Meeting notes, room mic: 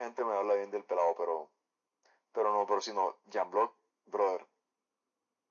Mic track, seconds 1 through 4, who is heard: echo only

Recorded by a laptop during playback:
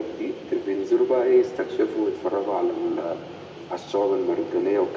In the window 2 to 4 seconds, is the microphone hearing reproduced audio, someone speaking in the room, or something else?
echo only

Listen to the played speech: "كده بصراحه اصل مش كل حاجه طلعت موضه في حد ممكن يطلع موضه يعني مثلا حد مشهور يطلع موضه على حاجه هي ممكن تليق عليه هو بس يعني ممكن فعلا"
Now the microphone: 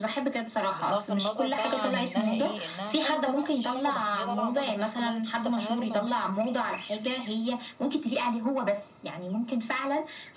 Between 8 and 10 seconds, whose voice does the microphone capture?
echo only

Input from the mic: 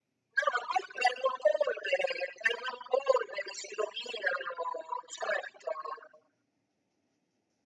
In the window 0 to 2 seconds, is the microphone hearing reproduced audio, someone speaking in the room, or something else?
echo only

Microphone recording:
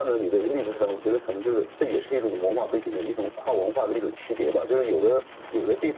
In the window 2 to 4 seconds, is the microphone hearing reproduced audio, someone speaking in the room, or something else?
echo only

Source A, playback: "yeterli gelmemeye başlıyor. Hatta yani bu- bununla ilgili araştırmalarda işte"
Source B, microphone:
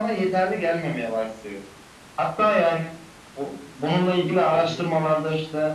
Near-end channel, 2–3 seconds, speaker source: echo only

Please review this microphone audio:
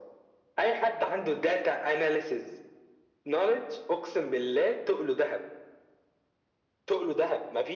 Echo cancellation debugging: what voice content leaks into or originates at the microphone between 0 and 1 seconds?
echo only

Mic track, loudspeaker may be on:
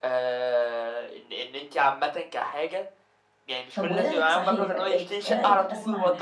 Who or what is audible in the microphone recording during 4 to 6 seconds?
both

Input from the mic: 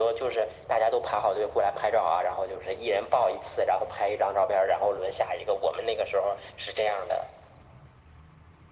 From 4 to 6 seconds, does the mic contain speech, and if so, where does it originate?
echo only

